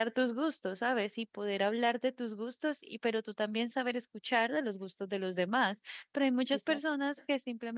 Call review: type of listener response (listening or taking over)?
listening